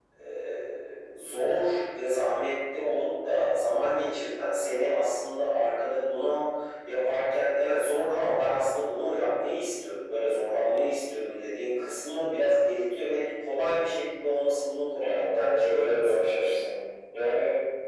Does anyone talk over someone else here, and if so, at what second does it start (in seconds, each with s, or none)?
15.0 s